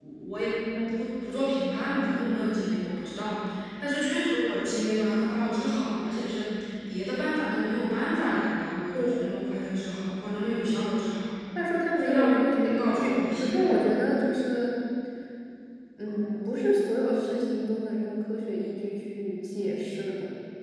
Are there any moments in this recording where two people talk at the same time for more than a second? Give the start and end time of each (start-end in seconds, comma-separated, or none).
12.0-13.8